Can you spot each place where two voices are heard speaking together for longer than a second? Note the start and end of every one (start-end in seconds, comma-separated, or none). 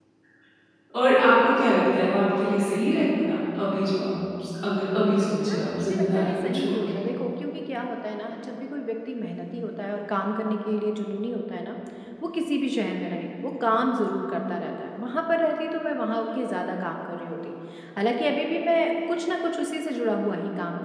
5.4-6.8